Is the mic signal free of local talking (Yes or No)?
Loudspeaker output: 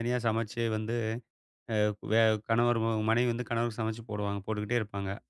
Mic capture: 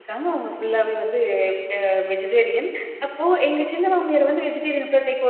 No